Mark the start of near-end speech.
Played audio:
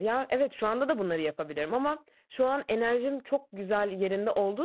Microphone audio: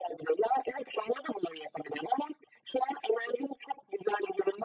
none

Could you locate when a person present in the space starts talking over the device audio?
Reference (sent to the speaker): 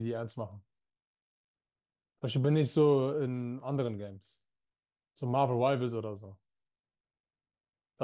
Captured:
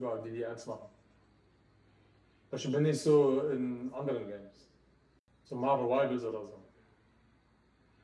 none

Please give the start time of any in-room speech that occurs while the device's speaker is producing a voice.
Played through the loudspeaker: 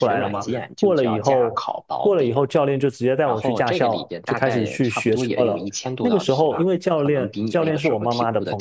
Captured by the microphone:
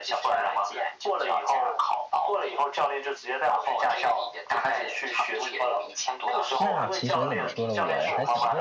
6.6 s

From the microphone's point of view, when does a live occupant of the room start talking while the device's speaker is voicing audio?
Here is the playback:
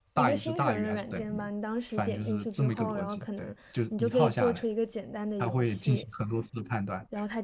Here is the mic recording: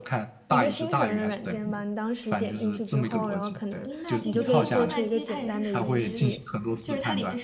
3.8 s

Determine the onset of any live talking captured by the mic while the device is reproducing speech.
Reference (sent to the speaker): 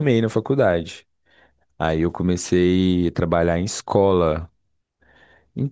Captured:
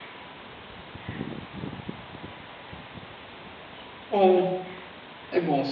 4.1 s

